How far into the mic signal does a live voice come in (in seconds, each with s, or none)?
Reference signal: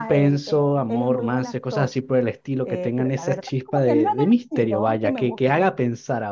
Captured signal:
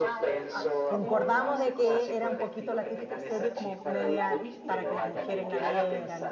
0.5 s